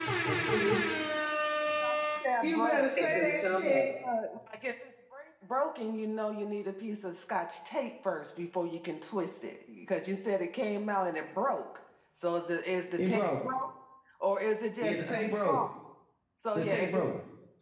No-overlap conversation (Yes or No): No